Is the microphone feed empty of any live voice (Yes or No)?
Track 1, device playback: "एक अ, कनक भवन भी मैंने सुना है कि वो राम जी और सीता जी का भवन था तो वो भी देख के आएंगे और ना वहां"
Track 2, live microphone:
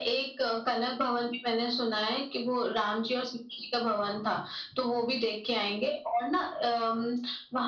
Yes